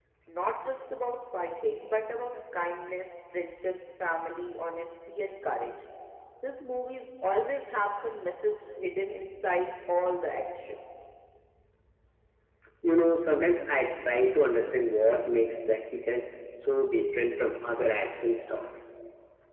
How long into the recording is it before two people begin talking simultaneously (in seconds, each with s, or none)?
none